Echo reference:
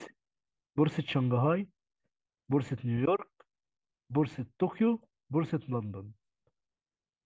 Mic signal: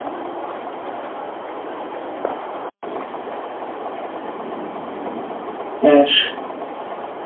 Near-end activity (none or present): present